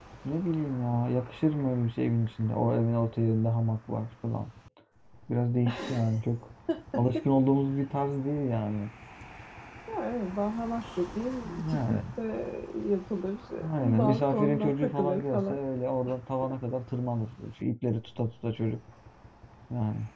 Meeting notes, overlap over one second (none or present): present